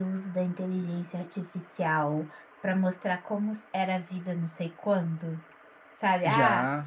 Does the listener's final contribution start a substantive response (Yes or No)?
No